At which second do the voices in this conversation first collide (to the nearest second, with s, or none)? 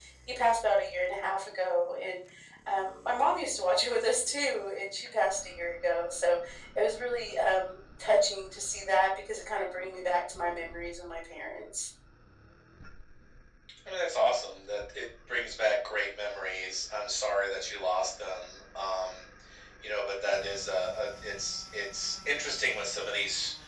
none